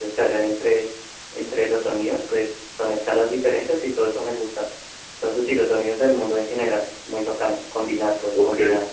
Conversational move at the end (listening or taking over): taking over